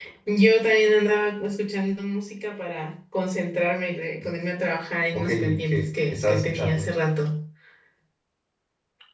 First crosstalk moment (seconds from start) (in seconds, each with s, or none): 5.1 s